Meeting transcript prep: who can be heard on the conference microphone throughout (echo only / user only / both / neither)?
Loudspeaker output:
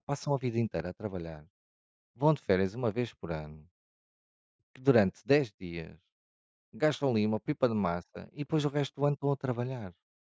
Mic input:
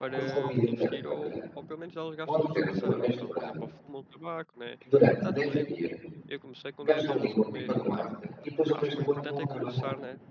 both